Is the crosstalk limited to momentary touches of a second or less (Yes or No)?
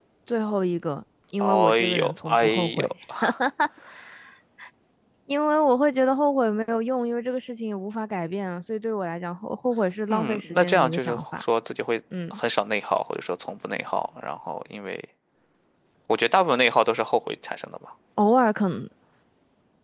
No